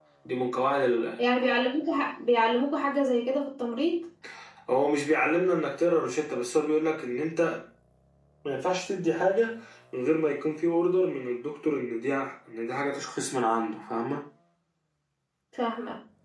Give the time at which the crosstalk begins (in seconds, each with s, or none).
none